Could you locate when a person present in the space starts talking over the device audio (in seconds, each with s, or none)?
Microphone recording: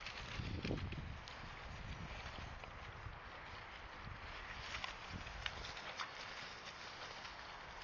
none